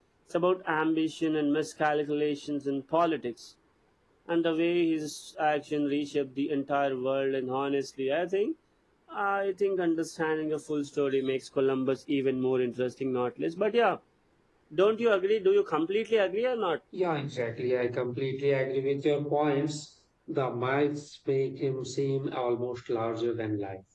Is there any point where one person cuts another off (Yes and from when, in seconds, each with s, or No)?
No